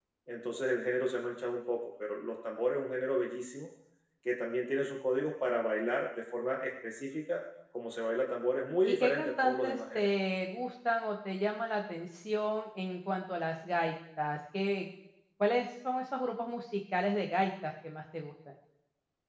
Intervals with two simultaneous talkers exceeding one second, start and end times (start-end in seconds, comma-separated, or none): 8.8-10.1